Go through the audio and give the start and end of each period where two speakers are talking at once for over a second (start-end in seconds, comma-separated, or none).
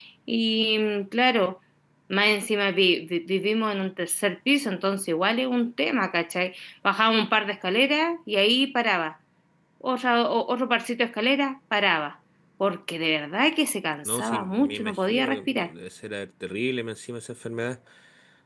14.0-15.7